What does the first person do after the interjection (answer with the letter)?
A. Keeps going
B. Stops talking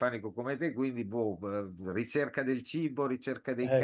B